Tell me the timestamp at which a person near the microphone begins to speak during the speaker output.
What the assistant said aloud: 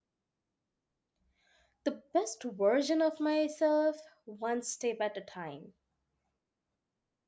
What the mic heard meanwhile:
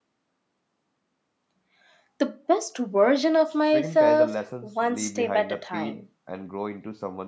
3.7 s

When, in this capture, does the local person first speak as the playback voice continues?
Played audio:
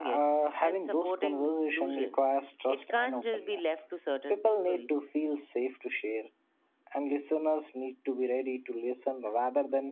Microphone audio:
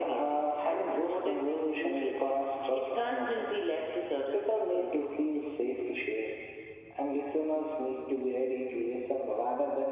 none

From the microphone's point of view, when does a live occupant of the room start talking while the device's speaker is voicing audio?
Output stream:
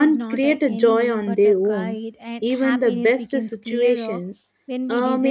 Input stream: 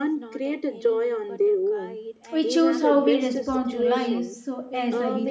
2.3 s

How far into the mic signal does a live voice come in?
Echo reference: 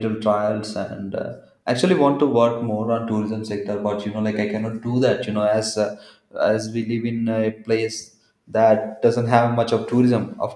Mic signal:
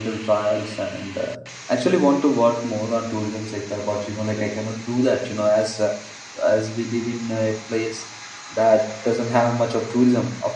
none

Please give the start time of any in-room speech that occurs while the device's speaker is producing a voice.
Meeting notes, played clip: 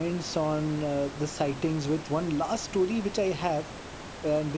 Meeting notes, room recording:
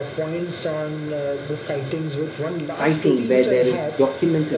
2.6 s

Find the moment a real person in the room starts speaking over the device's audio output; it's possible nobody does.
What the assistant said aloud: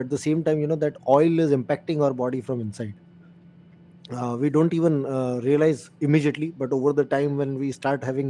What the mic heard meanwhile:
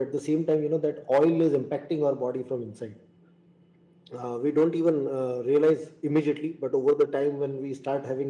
none

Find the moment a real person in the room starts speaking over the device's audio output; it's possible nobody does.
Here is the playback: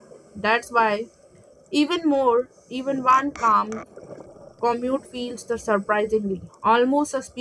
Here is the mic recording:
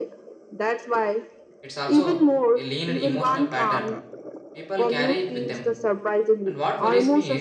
1.6 s

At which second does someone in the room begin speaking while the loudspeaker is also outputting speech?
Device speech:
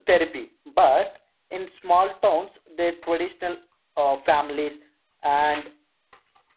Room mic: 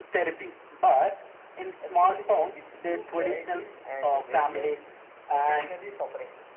1.8 s

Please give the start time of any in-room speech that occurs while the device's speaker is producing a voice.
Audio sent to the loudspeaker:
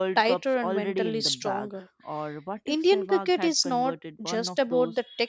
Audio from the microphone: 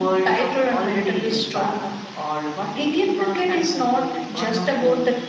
none

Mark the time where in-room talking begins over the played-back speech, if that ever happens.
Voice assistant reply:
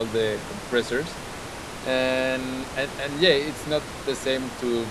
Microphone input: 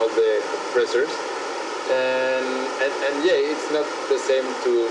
none

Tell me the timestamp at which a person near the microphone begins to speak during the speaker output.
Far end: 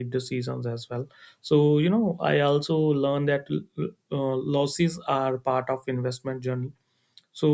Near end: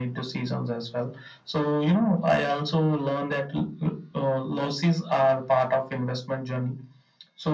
none

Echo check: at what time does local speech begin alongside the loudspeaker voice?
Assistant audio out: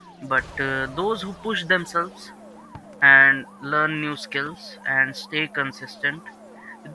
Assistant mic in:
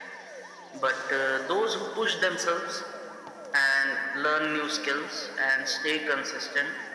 none

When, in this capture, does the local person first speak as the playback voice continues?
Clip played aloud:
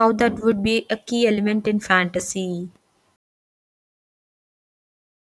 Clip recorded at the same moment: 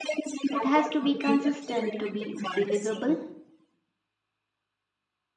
0.5 s

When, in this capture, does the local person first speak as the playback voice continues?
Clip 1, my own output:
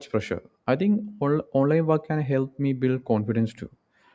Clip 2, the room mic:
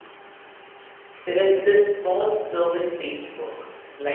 1.2 s

